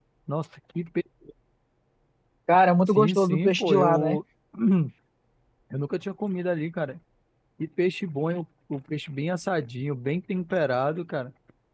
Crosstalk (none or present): present